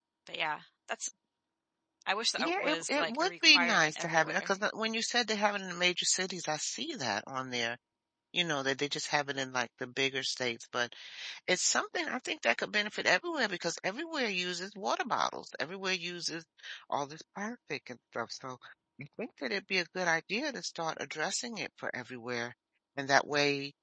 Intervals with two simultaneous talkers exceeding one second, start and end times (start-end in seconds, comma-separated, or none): 2.4-4.5